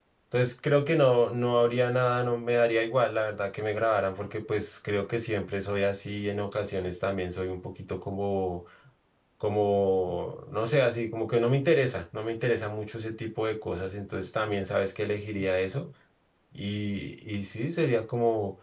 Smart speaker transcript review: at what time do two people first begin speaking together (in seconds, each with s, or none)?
none